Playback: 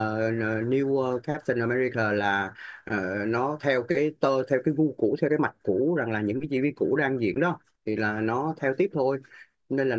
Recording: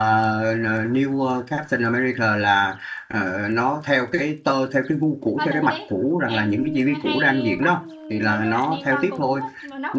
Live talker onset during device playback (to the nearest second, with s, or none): 5 s